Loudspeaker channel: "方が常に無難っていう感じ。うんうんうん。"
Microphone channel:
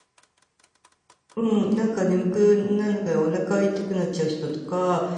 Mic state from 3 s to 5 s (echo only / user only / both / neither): user only